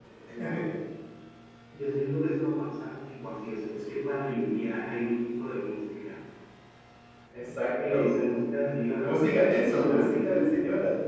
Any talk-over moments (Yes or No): Yes